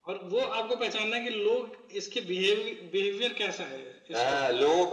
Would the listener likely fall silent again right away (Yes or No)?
No